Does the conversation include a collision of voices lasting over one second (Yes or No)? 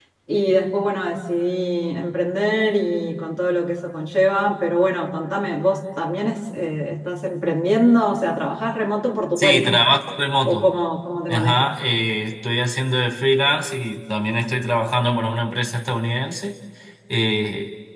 No